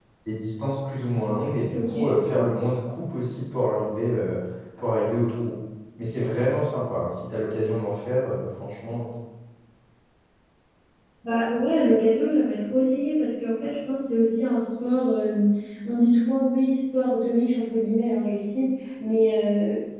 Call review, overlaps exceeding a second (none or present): none